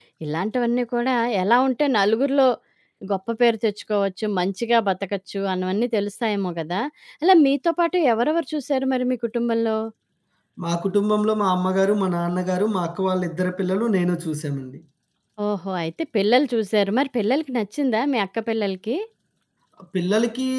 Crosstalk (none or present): none